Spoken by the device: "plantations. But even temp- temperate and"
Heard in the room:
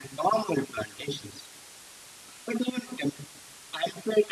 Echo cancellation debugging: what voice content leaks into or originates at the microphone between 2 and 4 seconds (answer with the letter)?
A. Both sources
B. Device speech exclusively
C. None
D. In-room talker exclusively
B